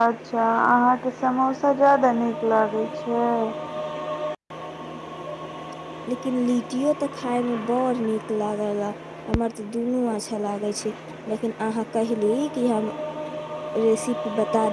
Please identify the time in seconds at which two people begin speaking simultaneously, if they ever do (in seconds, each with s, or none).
none